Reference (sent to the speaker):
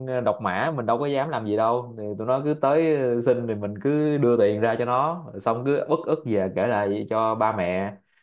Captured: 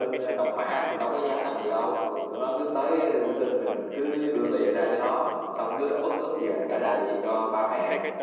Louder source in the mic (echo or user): echo